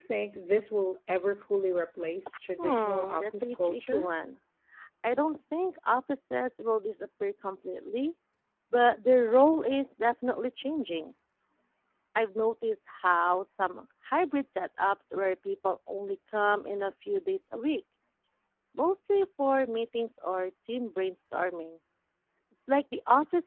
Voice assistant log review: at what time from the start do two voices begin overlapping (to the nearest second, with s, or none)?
3 s